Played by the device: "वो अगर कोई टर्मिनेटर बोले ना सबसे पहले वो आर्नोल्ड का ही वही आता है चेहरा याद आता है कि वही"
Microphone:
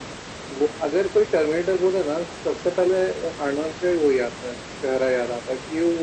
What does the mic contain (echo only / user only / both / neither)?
echo only